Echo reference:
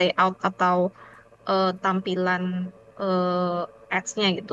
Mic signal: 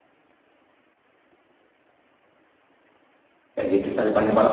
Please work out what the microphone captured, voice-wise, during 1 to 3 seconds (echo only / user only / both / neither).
neither